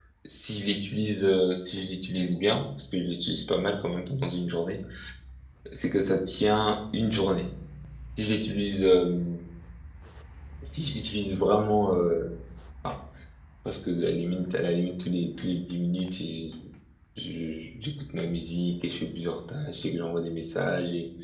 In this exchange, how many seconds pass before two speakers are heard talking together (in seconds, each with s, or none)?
none